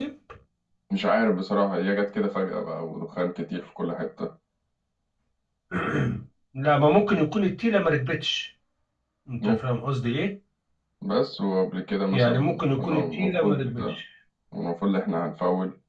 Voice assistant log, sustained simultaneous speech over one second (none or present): present